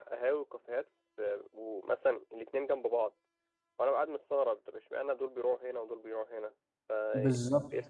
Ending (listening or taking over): taking over